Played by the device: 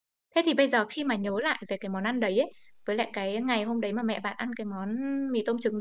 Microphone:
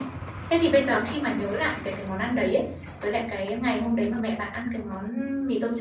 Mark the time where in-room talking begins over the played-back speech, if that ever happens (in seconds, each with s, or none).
none